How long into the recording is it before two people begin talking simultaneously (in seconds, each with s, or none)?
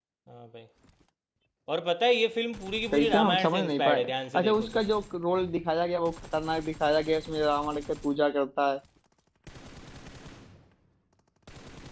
2.9 s